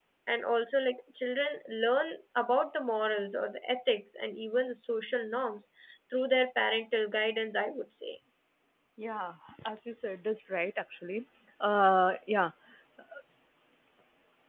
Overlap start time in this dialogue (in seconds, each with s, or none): none